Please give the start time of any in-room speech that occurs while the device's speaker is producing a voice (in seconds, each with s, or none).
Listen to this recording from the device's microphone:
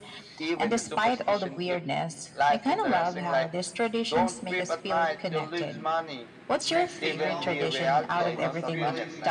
6.7 s